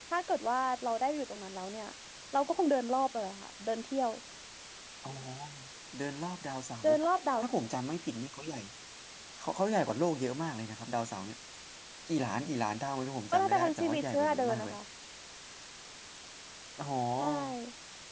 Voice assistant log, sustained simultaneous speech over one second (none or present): present